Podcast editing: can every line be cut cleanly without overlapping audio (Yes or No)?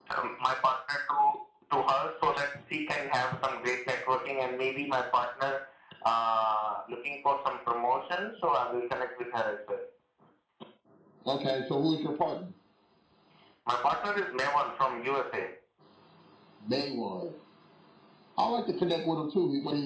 Yes